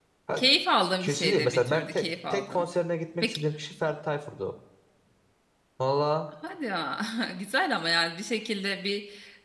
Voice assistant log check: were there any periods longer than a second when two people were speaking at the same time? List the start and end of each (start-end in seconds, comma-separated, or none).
1.0-2.6